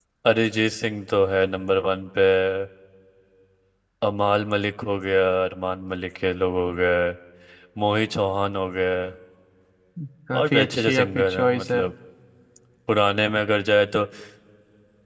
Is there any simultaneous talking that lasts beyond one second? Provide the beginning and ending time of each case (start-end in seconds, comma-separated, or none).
10.3-11.8